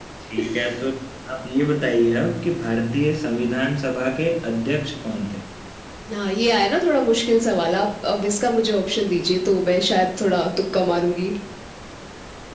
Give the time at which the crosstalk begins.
none

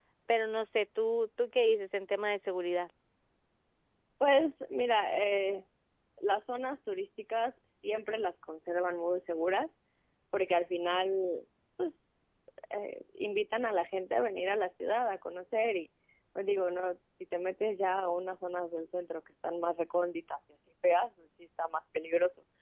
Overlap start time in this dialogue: none

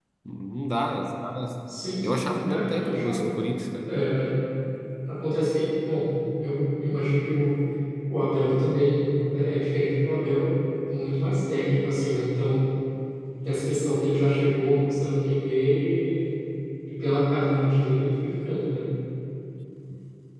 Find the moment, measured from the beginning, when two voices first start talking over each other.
2 s

